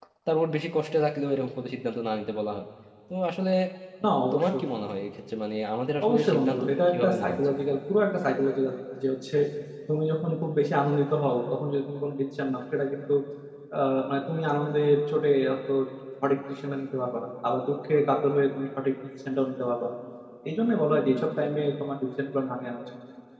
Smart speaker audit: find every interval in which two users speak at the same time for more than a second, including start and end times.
6.0-7.4

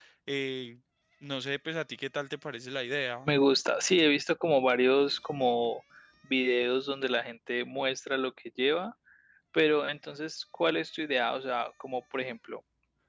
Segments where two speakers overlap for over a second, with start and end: none

